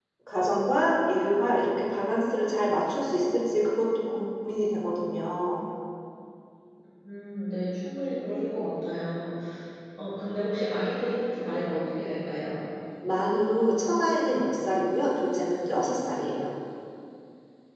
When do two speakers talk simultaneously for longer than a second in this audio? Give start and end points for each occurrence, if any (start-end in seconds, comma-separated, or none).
none